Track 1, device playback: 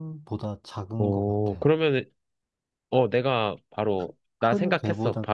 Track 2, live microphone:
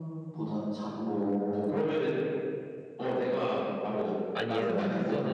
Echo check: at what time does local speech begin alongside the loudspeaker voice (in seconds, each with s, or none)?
4.3 s